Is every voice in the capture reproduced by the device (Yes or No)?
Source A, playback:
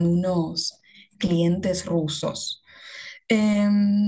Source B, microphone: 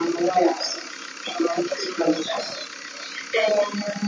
Yes